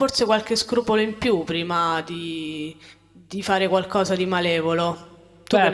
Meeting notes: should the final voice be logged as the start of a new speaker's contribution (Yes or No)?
Yes